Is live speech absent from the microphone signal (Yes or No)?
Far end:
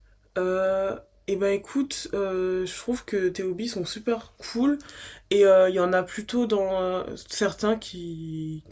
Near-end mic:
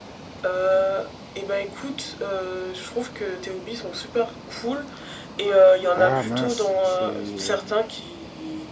No